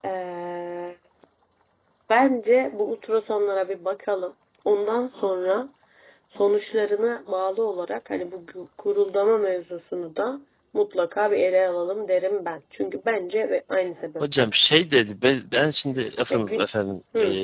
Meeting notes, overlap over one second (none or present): none